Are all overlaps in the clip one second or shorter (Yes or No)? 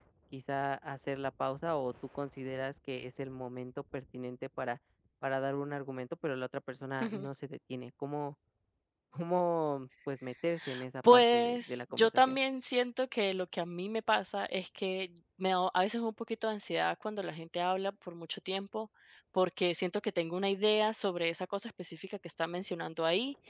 No